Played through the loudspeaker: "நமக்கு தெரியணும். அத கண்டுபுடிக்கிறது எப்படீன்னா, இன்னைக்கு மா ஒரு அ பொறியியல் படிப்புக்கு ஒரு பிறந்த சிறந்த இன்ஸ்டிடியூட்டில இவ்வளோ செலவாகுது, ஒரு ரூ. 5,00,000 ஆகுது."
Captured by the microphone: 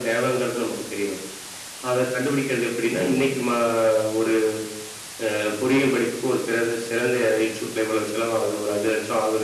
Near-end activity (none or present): none